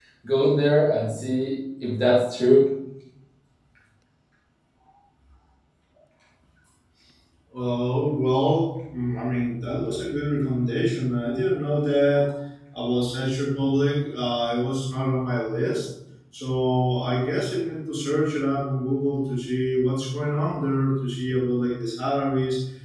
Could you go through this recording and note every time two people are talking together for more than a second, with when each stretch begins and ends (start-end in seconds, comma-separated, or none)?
none